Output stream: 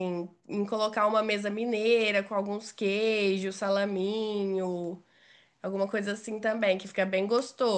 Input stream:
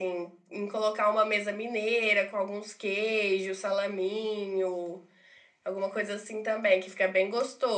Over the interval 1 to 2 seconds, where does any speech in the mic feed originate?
echo only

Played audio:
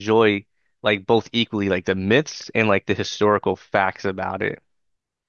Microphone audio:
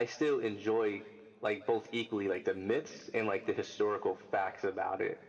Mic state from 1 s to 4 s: echo only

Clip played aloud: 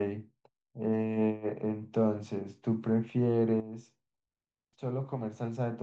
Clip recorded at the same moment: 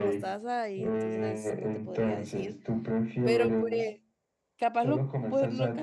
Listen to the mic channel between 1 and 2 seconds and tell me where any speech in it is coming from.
both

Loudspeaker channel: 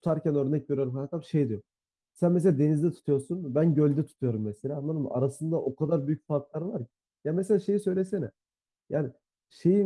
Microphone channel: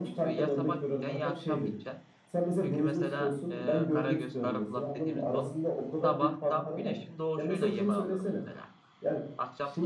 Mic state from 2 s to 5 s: both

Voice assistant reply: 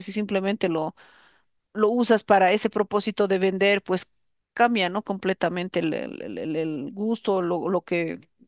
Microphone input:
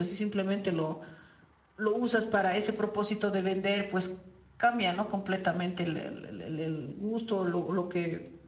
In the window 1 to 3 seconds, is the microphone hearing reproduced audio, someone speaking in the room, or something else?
echo only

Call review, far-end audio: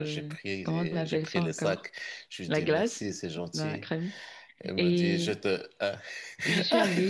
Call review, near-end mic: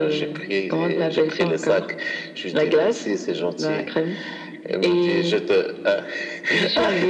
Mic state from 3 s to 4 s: echo only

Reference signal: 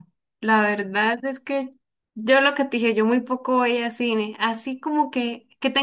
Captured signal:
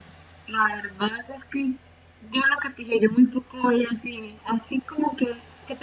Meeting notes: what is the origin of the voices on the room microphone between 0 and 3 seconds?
echo only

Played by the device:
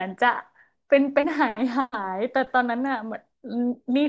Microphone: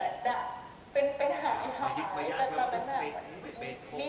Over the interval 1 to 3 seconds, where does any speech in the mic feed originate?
both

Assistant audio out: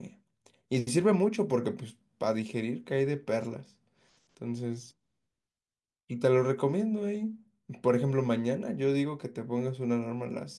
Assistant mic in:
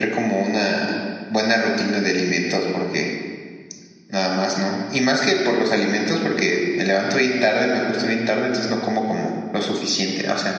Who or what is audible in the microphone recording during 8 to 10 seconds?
user only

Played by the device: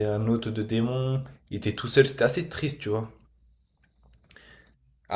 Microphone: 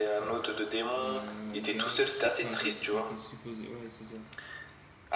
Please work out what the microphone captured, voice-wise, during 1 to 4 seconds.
both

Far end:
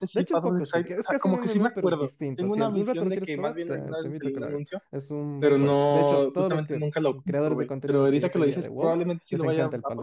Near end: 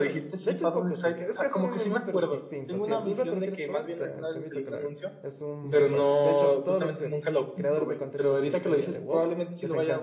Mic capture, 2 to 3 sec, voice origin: echo only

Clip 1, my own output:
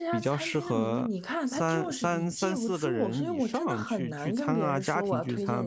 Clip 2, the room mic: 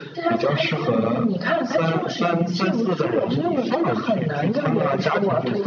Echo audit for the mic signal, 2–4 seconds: echo only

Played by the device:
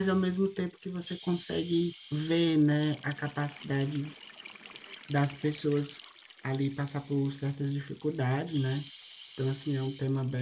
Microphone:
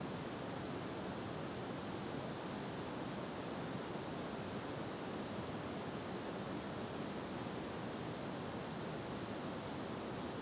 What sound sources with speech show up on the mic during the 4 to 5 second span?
neither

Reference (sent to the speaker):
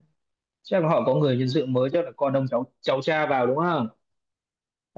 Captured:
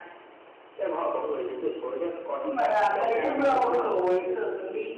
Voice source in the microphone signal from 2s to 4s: both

